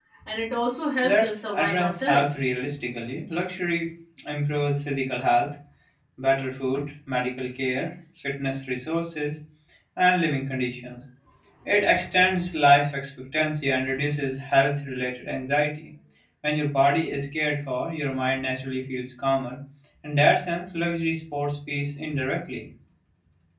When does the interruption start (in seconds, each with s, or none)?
1.0 s